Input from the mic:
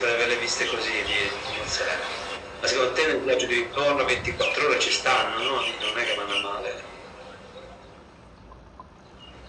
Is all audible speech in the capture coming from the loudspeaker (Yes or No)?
Yes